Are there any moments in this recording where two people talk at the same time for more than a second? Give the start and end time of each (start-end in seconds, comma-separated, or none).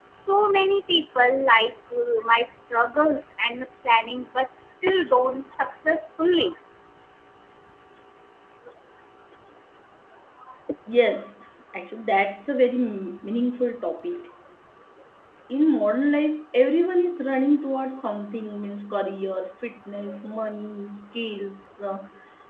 none